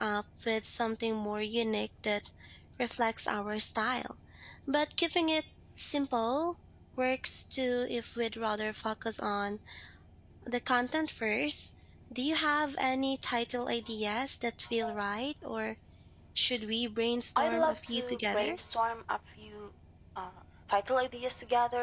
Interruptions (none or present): present